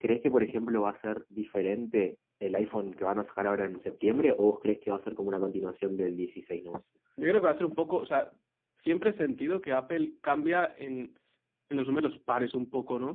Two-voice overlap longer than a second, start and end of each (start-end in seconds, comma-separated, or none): none